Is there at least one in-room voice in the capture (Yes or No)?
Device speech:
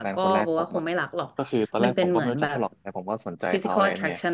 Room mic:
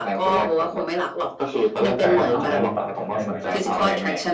Yes